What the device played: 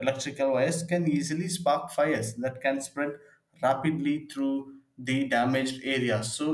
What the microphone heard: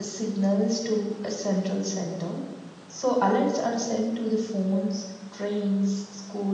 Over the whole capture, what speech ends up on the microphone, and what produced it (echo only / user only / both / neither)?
user only